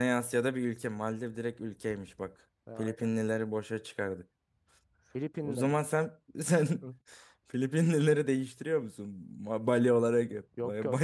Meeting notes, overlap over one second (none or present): none